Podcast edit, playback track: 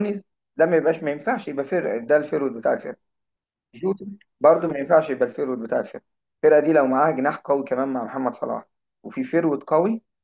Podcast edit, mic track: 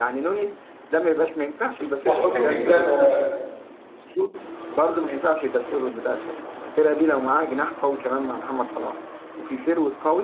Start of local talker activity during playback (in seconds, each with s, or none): 2.0 s